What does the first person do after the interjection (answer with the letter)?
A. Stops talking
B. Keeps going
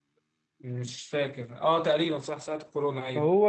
A